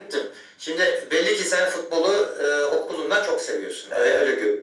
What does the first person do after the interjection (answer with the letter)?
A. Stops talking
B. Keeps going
A